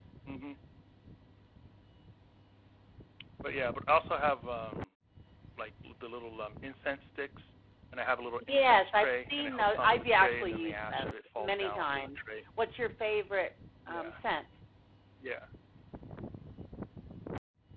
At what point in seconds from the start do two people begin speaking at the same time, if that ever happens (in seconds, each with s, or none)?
8.5 s